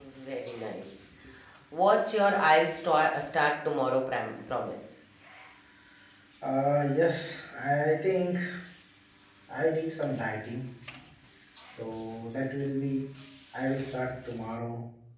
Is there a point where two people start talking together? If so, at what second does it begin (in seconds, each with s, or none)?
none